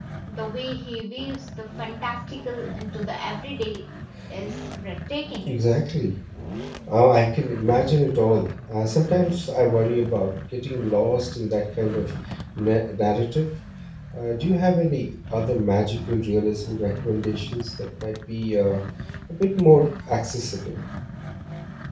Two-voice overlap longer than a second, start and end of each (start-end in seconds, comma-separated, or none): none